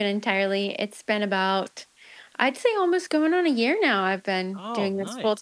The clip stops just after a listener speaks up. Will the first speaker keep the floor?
No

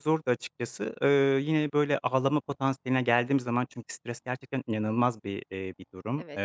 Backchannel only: Yes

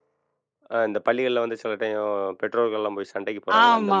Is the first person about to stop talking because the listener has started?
Yes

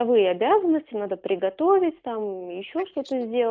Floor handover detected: No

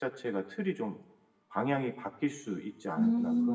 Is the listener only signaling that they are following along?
No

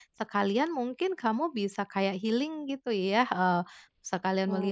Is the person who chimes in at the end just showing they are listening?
Yes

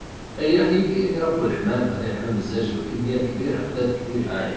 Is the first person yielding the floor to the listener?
No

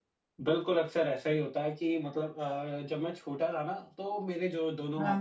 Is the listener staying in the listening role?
Yes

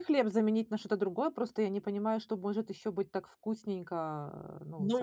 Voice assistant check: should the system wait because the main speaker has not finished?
No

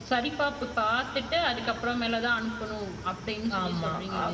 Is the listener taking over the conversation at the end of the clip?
Yes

